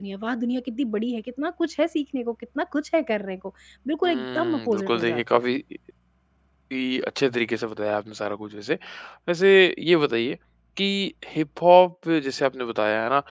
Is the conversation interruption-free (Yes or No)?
No